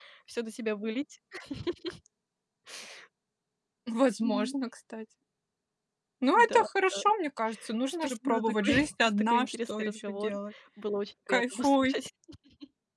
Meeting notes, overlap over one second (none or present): present